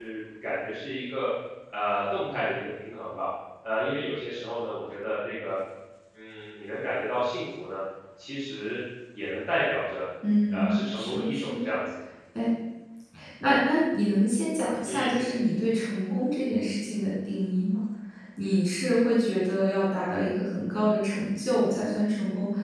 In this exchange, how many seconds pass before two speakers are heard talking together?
10.5 s

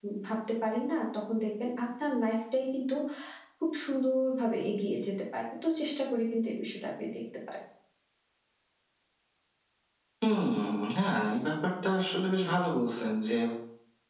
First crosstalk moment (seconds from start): none

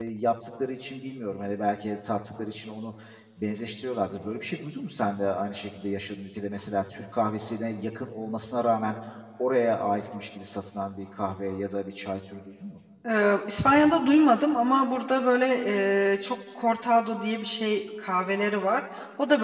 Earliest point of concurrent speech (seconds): none

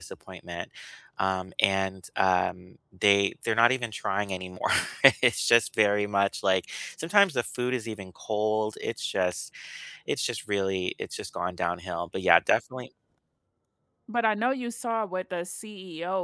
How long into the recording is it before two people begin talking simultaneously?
none

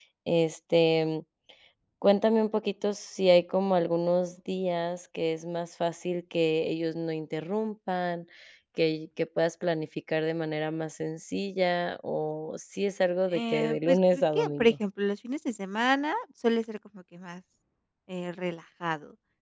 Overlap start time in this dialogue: 13.3 s

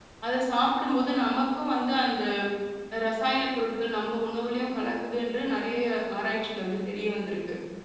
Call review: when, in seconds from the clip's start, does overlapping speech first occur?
none

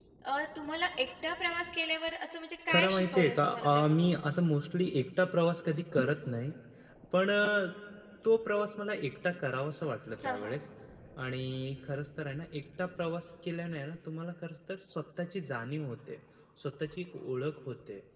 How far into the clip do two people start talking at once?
2.7 s

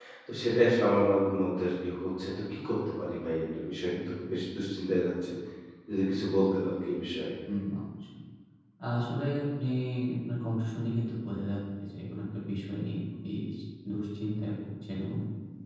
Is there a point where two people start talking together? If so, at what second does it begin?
none

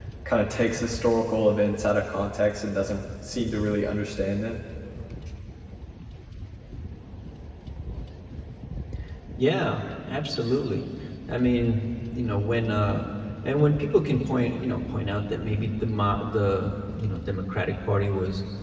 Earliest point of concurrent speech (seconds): none

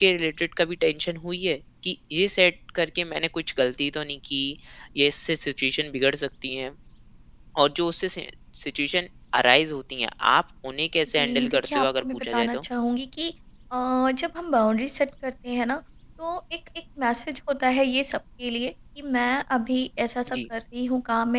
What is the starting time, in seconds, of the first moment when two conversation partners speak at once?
11.1 s

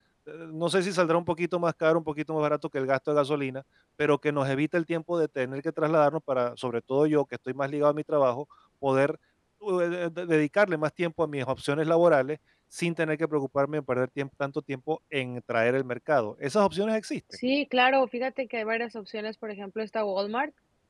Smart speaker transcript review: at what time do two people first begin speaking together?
none

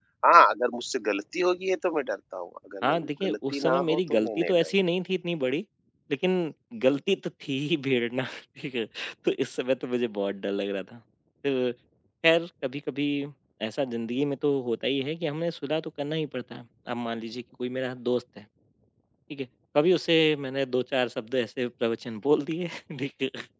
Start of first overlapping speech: 2.8 s

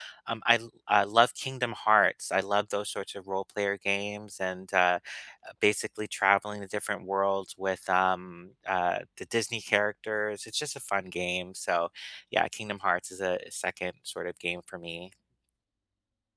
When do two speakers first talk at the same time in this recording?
none

